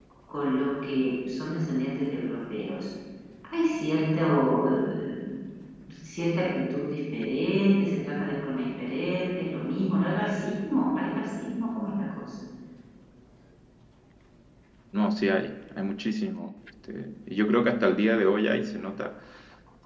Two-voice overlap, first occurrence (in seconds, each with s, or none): none